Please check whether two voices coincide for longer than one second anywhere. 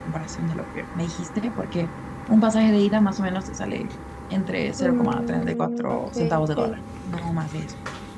Yes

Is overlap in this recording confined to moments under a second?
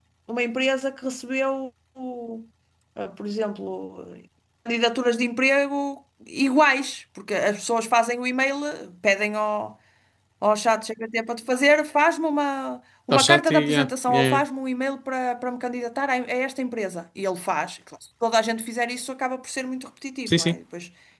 No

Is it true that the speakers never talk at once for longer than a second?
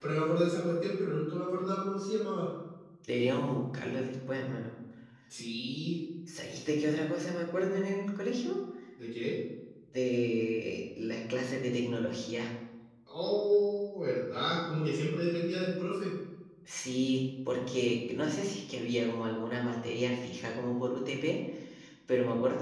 Yes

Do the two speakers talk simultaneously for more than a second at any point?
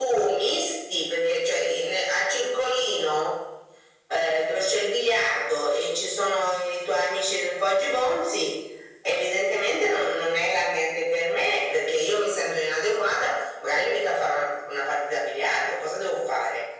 No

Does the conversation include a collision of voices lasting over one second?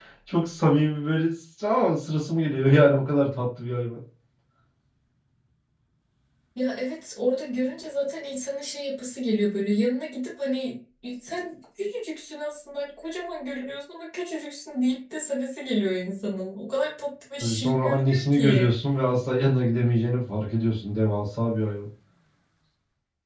Yes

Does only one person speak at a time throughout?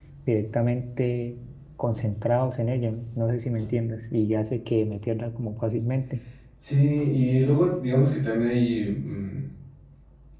Yes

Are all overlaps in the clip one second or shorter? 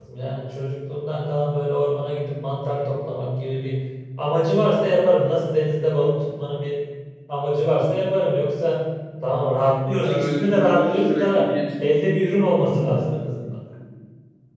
No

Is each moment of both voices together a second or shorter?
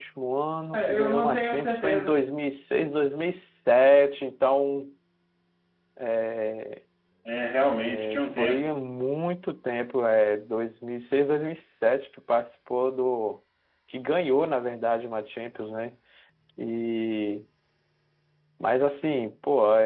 No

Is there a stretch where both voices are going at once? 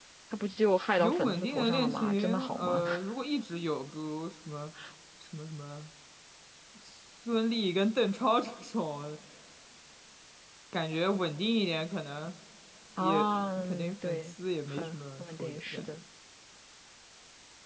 Yes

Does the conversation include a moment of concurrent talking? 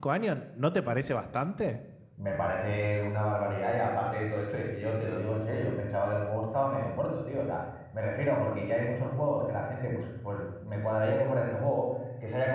No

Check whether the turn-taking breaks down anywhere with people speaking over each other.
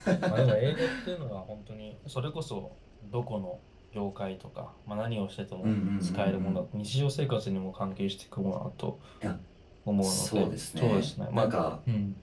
Yes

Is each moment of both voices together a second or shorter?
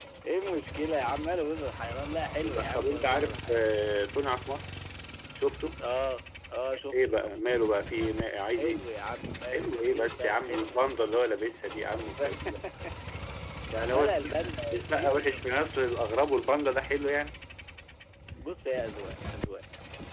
No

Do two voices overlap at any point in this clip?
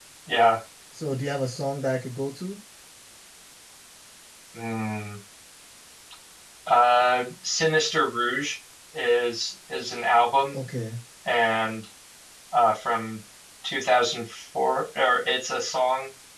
No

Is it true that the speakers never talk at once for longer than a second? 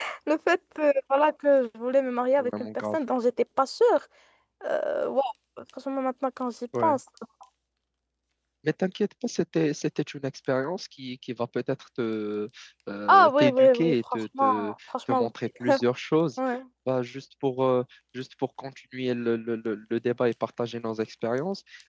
No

